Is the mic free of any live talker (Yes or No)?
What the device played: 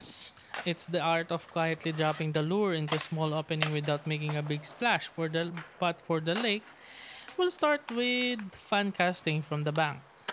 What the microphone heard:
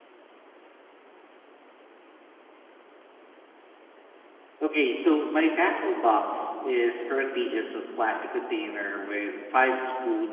No